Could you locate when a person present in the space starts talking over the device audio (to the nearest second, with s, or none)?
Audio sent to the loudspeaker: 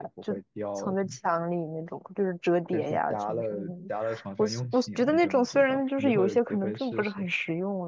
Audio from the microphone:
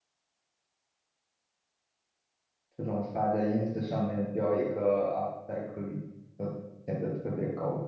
3 s